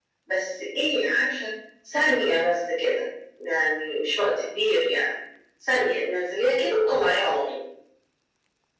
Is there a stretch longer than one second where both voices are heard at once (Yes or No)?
No